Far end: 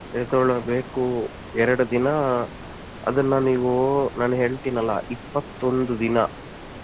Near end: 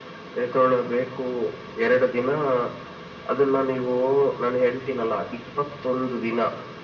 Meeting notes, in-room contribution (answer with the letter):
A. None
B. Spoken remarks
A